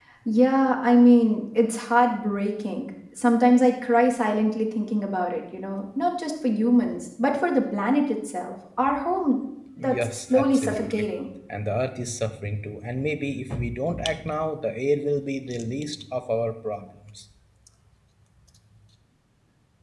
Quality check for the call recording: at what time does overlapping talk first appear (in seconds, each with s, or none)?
9.8 s